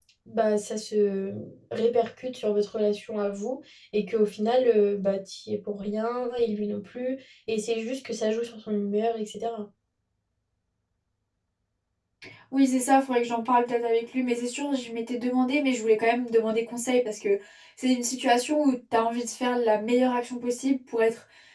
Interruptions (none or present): none